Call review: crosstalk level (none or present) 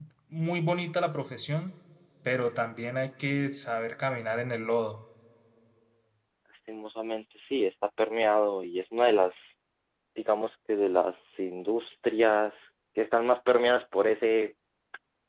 none